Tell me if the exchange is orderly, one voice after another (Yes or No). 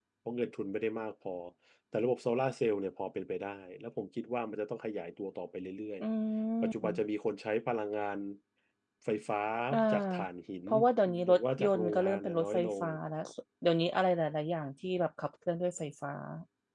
No